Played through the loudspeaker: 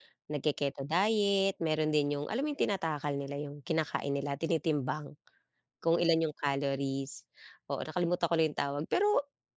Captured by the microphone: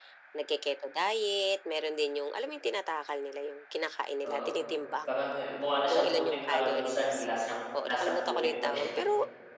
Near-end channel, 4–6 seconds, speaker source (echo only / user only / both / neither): both